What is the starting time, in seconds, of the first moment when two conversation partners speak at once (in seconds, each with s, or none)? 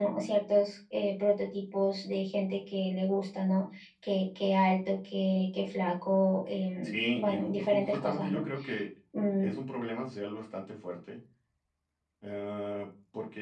6.8 s